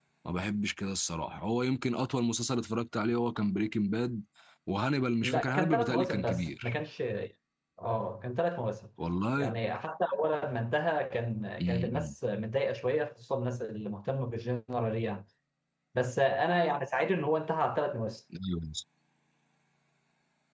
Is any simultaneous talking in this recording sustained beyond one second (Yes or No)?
Yes